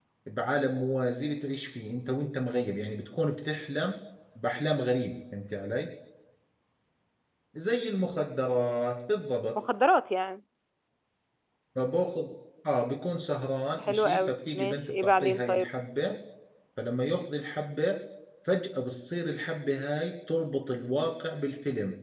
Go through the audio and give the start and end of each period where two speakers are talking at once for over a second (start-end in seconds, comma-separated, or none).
13.8-15.7